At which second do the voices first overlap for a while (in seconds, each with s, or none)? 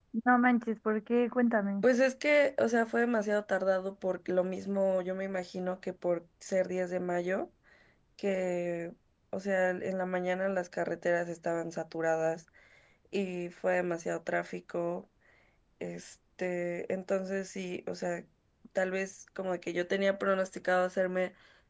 none